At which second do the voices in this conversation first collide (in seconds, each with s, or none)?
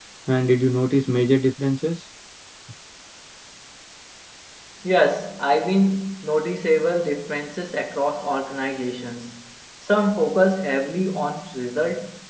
none